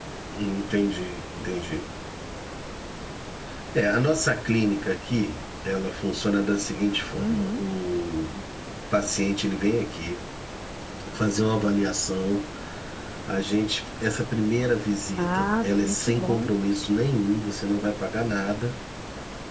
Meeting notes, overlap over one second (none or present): present